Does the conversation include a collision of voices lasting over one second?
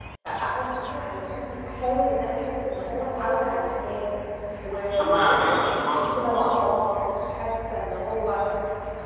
Yes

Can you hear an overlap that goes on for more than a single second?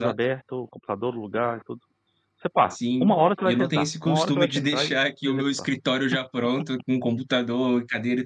Yes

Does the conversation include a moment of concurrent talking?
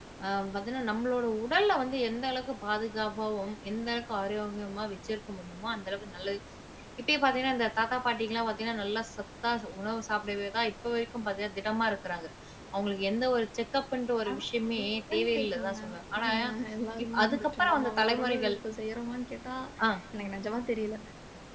Yes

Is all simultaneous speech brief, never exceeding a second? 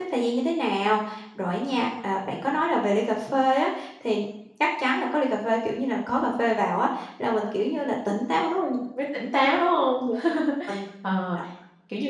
Yes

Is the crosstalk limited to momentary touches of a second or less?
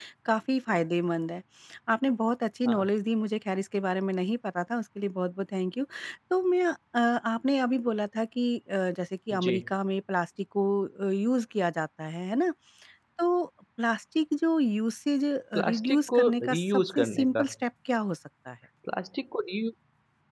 No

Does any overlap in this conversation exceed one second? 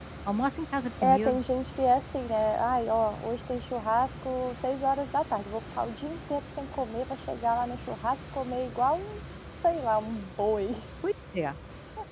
No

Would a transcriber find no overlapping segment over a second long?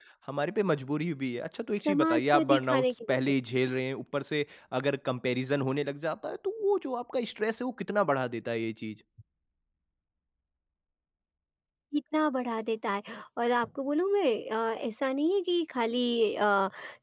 No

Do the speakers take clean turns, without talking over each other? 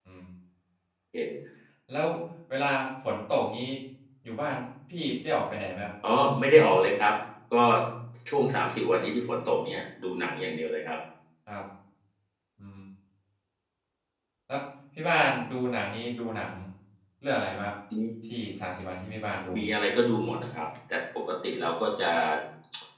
Yes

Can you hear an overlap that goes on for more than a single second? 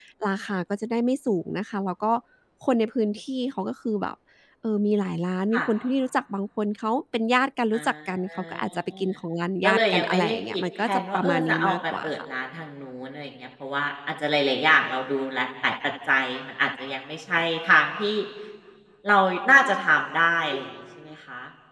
Yes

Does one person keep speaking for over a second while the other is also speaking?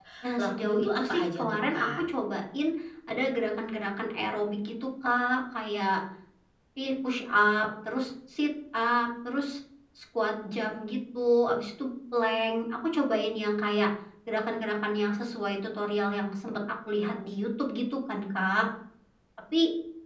Yes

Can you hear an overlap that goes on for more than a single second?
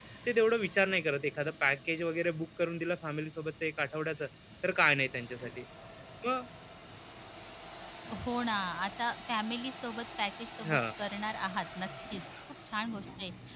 No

